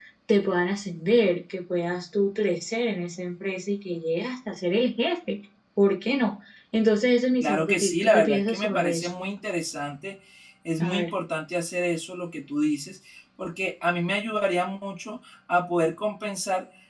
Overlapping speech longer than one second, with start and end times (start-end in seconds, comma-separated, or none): 7.4-9.1